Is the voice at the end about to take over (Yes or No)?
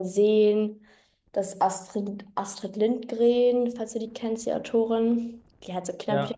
No